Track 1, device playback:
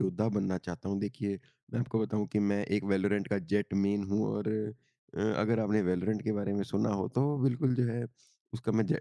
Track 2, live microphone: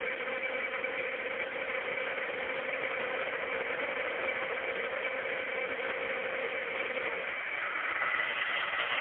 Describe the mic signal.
neither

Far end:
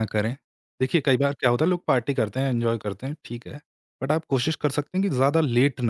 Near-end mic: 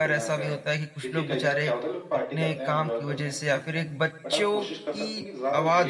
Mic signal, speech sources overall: both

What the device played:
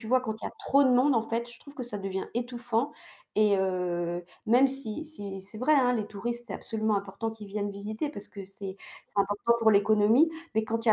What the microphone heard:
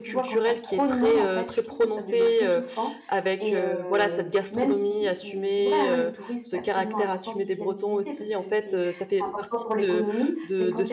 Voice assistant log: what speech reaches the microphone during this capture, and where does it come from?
both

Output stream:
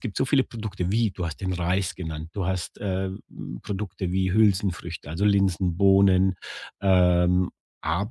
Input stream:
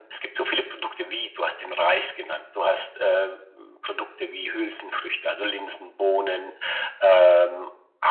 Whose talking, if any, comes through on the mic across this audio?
echo only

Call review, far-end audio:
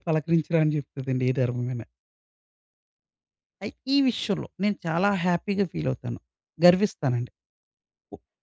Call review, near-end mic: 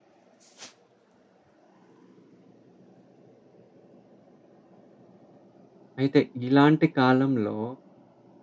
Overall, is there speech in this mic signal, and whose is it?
user only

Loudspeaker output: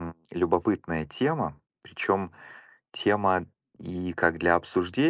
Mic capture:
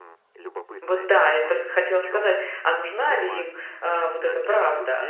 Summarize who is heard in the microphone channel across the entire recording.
both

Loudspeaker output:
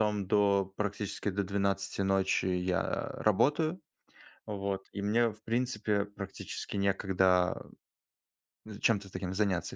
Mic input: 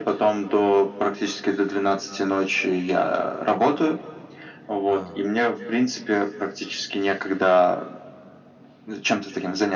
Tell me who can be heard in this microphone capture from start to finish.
both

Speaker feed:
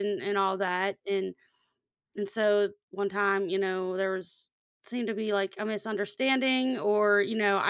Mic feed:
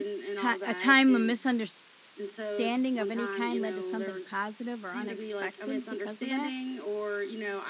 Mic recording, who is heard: both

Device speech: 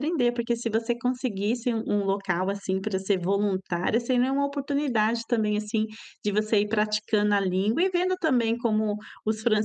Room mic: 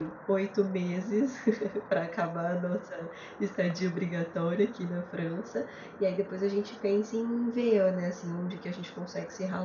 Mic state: user only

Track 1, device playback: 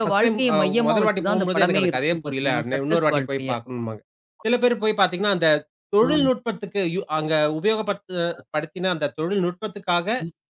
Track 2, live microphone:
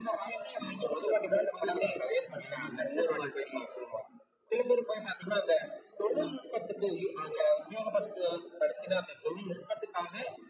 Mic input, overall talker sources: echo only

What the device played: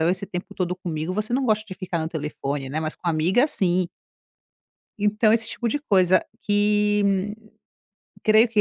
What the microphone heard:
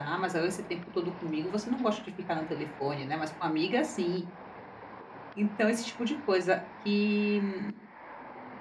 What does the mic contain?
echo only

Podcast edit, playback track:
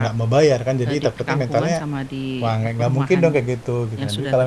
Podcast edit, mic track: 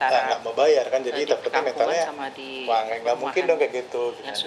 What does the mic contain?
echo only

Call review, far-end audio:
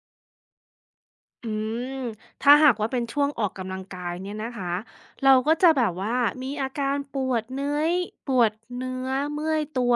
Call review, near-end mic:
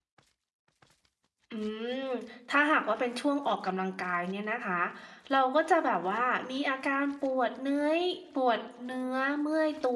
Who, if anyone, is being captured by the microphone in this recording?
echo only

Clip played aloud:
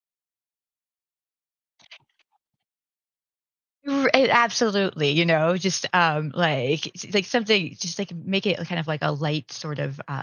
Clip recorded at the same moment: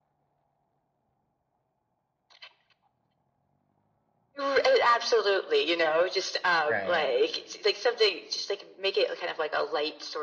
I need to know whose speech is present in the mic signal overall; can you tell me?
both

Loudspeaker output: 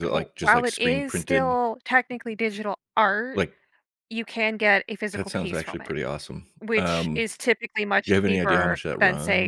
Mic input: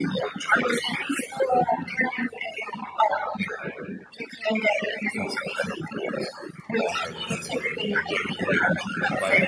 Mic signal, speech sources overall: both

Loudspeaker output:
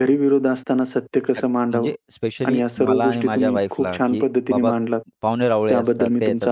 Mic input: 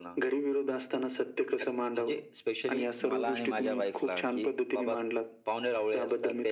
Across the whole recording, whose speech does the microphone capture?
echo only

